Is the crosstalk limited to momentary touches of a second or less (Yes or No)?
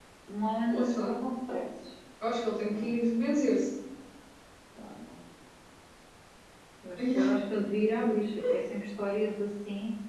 Yes